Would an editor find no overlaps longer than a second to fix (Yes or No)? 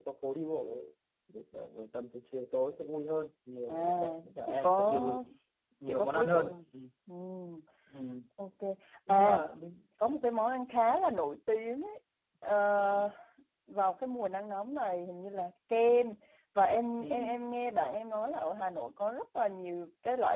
No